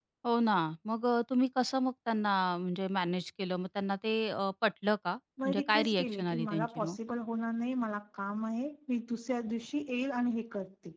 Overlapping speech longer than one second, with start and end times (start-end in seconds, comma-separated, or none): 5.5-7.0